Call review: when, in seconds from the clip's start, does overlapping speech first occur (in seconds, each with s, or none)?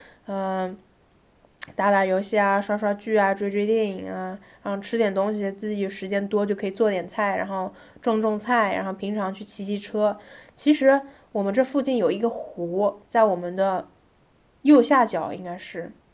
none